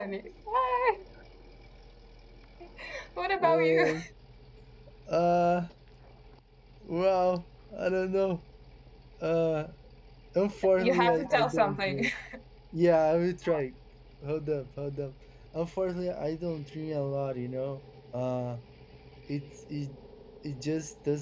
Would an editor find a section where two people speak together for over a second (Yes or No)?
Yes